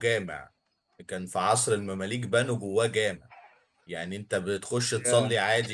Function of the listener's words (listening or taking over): listening